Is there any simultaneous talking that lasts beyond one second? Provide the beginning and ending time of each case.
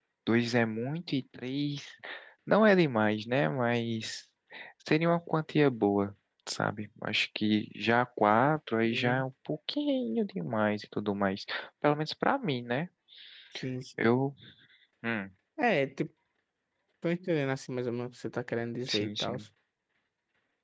none

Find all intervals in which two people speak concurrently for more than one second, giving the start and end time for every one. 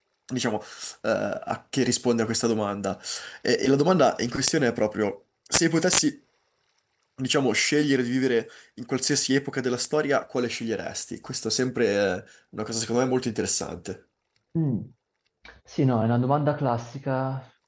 none

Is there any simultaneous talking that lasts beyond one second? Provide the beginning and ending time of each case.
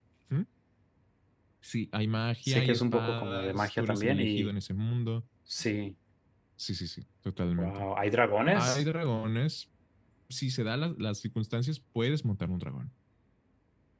2.5-4.5

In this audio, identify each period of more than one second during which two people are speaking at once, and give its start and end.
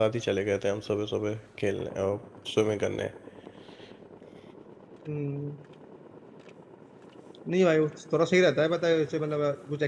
none

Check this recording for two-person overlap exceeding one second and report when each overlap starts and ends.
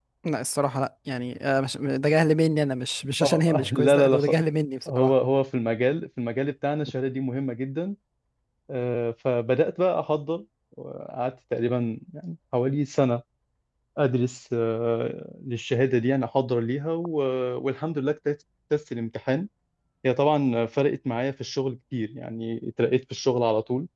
3.2-4.4

